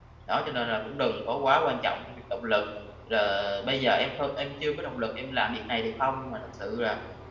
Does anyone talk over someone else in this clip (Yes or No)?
No